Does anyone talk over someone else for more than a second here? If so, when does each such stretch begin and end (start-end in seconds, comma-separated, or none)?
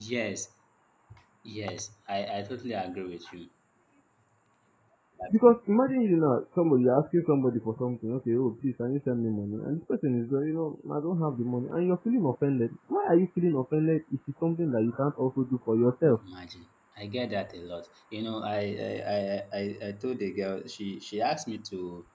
none